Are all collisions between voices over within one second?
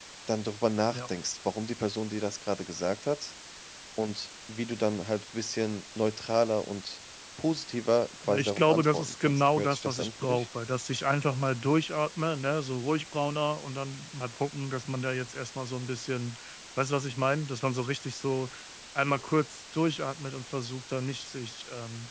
No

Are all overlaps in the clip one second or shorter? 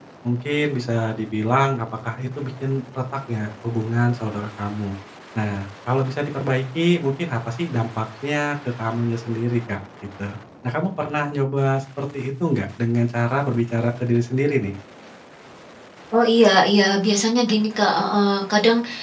Yes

